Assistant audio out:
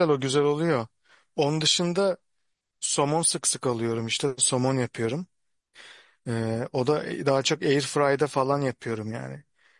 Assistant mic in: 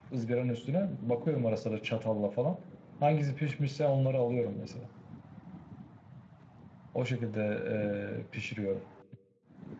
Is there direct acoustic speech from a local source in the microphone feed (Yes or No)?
Yes